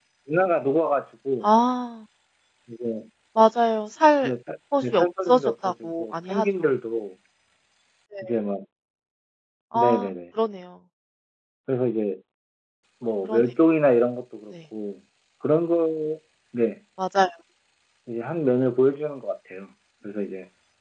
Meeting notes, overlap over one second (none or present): present